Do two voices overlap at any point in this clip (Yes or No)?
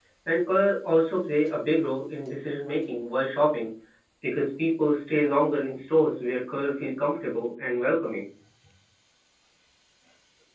No